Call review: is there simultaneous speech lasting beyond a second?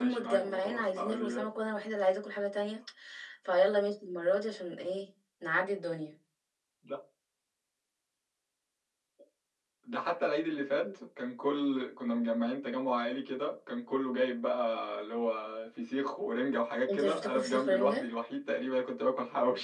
Yes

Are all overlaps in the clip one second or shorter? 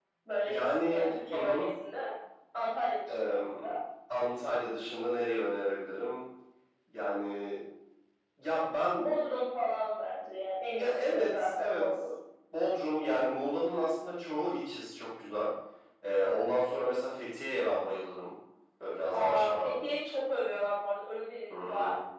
No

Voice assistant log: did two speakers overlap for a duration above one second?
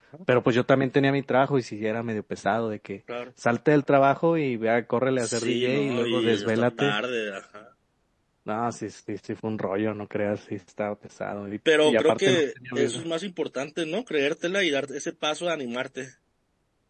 Yes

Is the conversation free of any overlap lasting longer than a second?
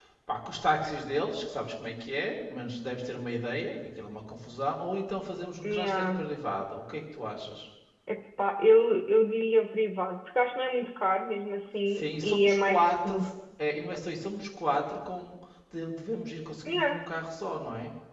No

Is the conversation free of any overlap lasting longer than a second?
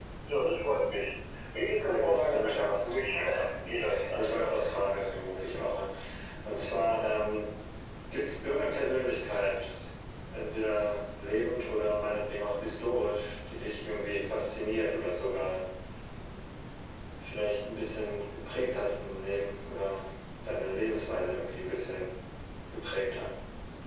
No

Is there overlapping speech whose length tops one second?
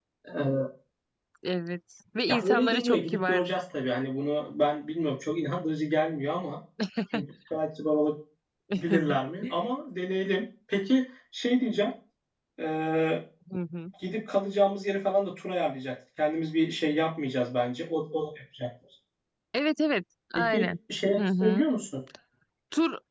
Yes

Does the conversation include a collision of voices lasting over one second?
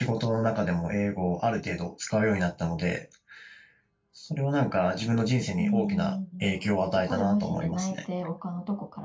Yes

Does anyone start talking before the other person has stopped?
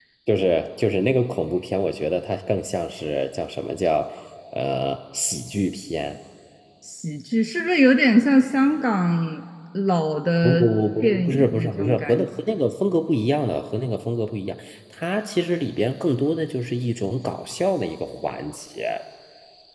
Yes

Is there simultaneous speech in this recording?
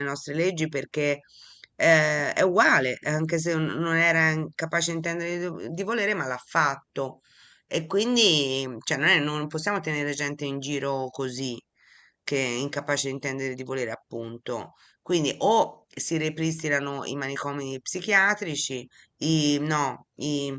No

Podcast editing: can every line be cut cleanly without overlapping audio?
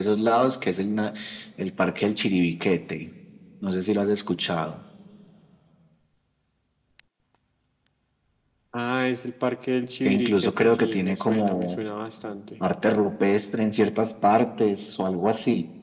No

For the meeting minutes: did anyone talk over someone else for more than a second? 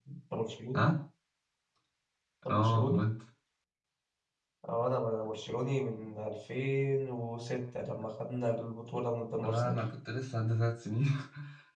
No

